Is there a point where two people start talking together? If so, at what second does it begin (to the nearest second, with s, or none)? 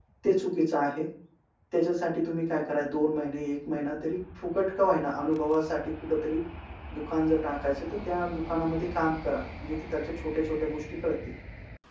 none